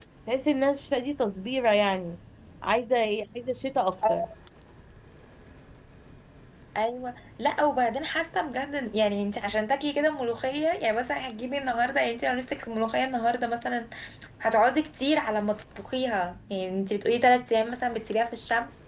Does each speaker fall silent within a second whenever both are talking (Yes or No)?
Yes